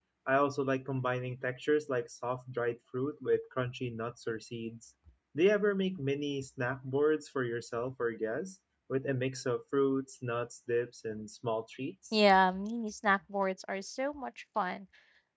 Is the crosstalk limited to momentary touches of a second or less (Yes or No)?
Yes